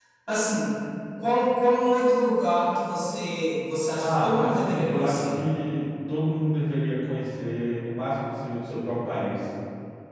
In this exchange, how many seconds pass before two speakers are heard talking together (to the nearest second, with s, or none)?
4 s